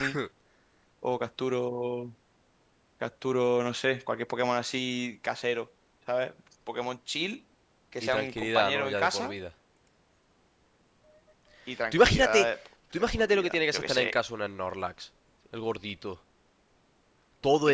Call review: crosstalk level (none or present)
present